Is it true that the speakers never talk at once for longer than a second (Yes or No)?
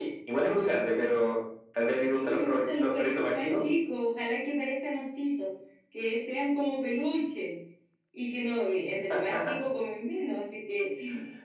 No